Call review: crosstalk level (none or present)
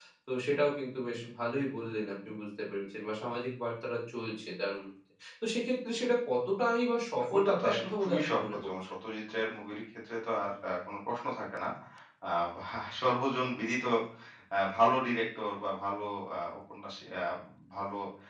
present